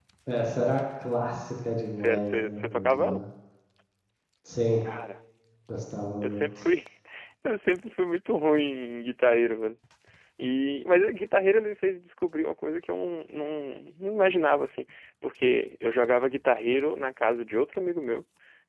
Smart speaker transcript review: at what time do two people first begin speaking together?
2.0 s

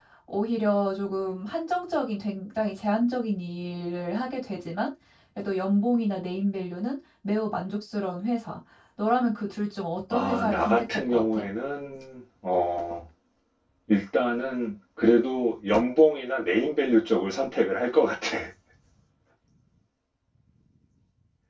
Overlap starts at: 10.1 s

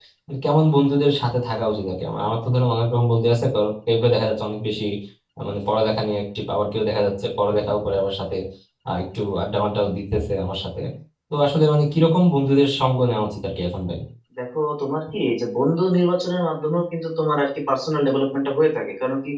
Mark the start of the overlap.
none

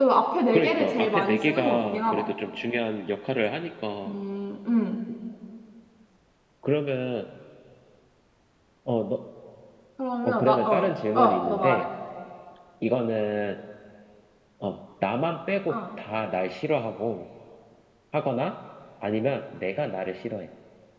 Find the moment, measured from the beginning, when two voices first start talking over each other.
0.5 s

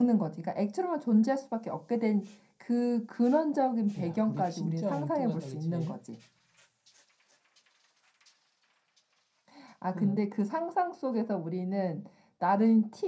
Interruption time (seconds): 4.0 s

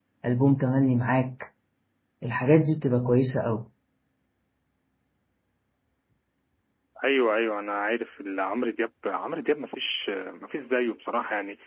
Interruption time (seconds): none

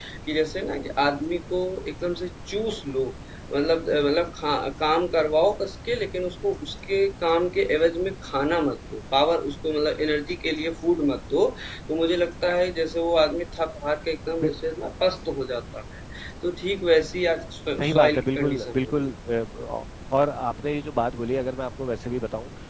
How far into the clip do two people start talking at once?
17.8 s

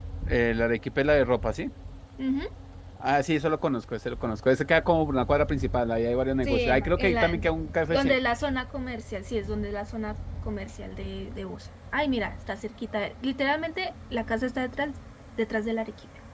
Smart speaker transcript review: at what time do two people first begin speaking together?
6.4 s

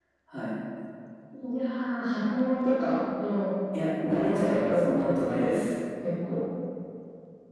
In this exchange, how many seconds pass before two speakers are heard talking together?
4.0 s

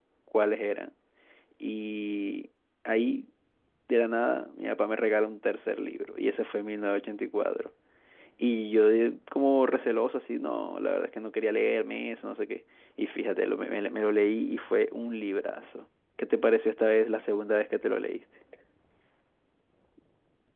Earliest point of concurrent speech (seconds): none

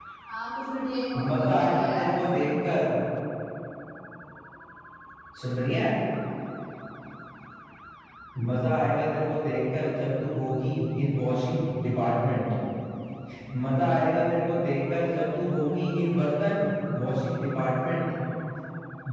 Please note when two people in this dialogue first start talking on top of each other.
1.3 s

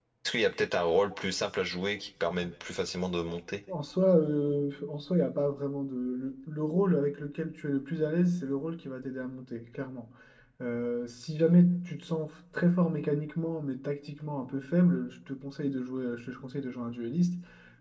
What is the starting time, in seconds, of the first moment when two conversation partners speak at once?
none

